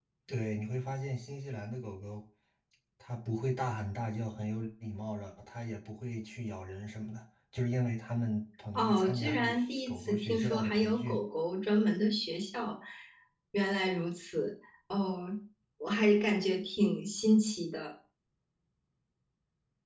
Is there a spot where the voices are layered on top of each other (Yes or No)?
Yes